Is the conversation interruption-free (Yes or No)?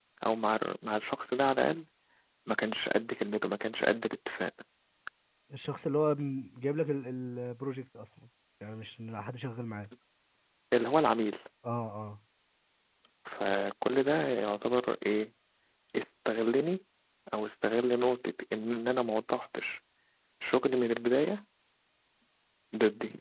Yes